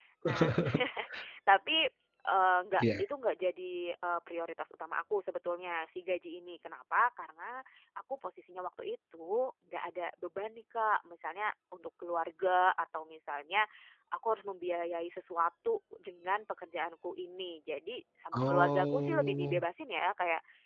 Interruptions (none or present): present